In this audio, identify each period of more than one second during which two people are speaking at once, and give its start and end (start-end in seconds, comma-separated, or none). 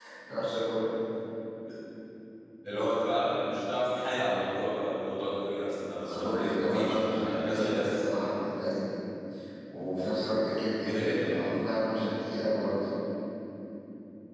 6.1-7.9